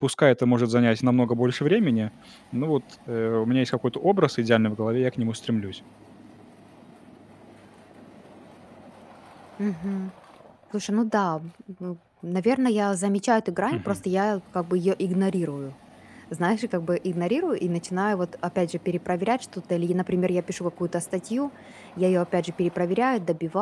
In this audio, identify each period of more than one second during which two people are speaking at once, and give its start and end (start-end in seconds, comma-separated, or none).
none